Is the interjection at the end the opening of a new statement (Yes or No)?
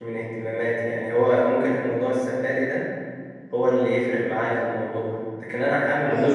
No